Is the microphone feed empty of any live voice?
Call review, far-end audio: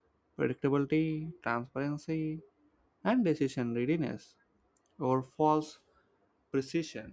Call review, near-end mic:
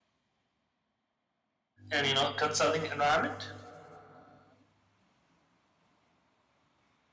No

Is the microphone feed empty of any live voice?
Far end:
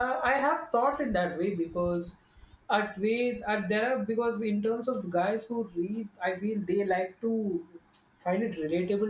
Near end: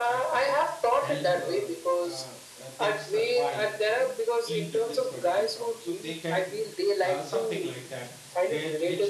No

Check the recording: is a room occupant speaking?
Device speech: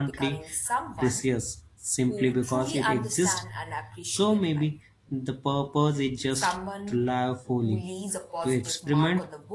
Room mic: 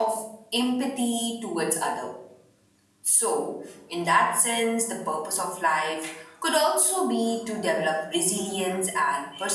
Yes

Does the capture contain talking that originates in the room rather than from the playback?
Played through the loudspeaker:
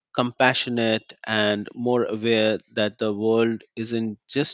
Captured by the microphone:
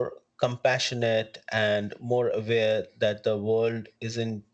No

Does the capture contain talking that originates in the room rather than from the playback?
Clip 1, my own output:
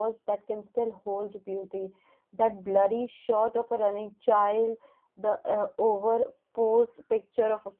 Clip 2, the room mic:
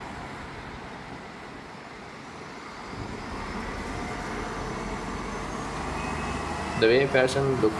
Yes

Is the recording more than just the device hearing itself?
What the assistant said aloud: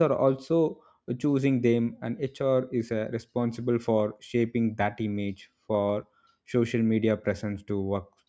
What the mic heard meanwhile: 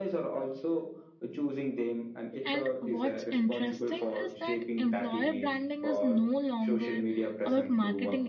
Yes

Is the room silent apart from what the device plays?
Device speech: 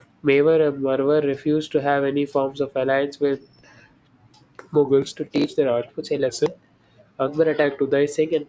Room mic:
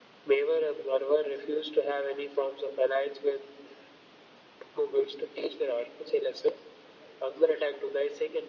Yes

